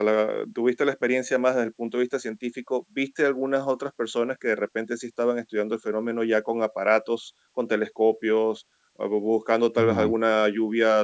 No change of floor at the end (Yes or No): Yes